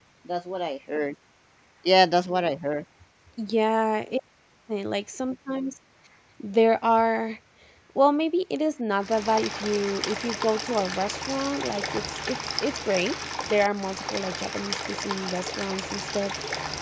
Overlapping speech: No

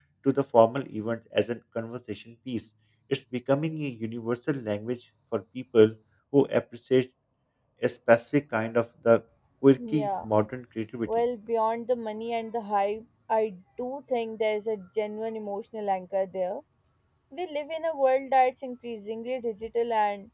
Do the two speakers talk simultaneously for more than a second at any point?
No

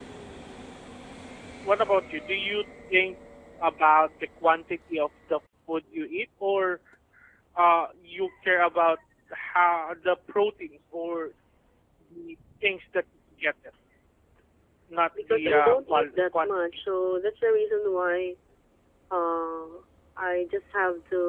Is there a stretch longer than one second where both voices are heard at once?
Yes, from 15.2 s

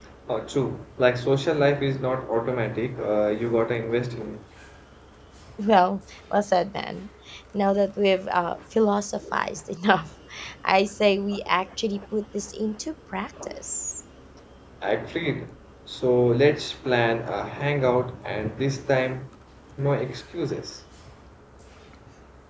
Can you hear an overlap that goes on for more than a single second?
No

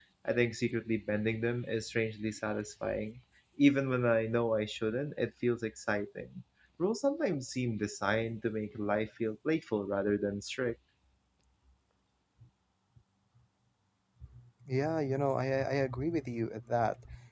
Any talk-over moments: No

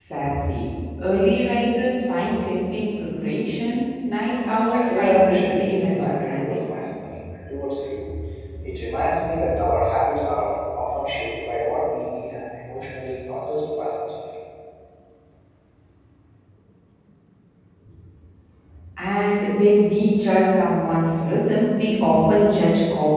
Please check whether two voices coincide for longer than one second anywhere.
Yes, from 4.6 s

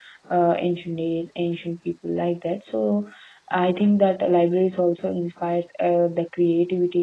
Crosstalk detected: No

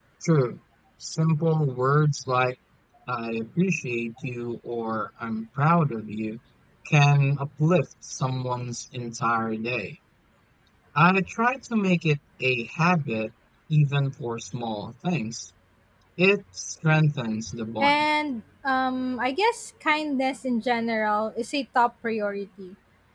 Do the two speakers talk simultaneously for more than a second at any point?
No

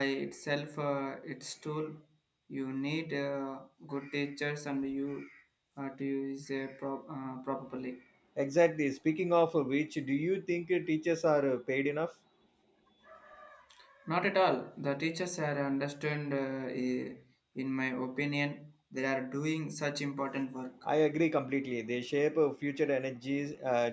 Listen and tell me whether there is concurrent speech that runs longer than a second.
No

